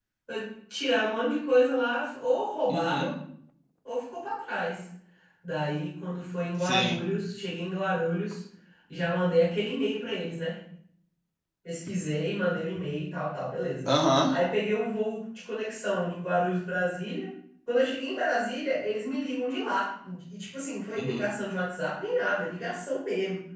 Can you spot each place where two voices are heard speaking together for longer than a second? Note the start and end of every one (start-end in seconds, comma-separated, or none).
none